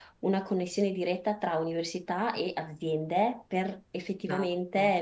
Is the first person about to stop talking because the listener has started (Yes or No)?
No